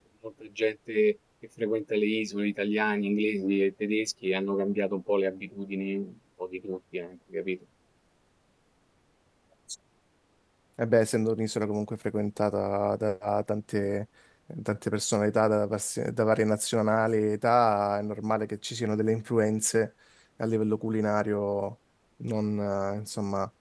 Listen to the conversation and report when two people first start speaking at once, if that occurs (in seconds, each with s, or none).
none